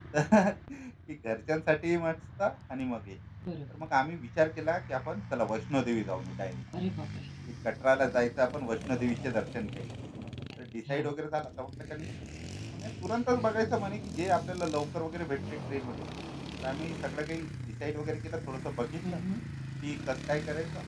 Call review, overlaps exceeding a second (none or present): none